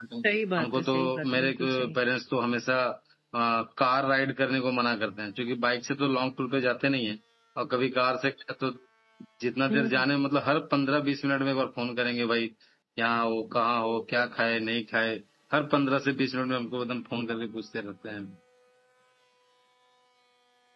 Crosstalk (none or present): present